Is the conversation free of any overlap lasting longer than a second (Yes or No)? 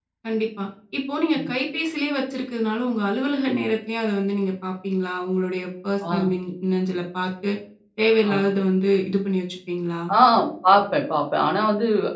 Yes